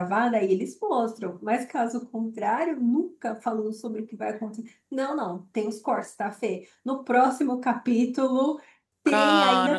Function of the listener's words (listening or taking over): listening